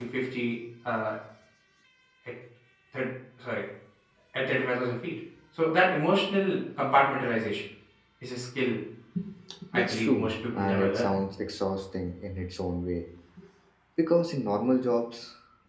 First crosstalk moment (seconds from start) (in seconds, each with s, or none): 9.7 s